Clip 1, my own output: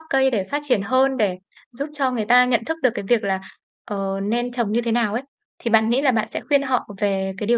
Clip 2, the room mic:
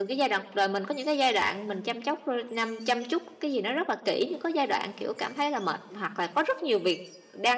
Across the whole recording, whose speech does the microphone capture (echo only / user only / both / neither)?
user only